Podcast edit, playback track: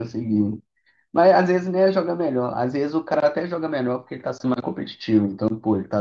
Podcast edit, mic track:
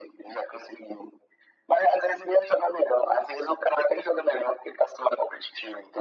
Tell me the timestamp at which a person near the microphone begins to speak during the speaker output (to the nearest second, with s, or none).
none